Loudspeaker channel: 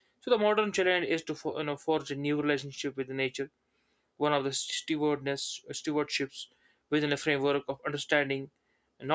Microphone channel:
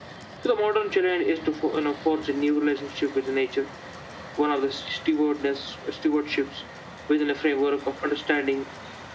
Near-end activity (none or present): none